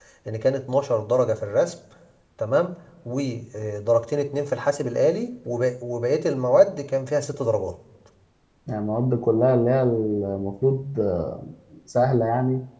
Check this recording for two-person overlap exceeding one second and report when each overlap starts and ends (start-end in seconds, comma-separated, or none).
none